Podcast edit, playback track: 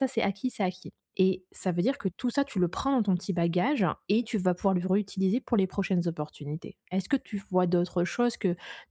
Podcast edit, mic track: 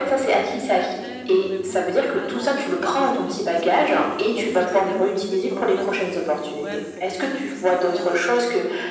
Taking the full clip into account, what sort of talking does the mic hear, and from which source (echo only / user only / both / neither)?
both